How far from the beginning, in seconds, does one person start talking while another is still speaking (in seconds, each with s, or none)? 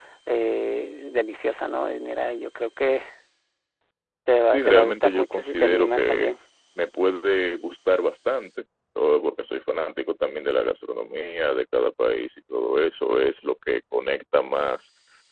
4.5 s